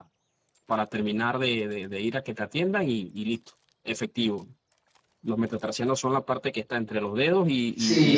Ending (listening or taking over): taking over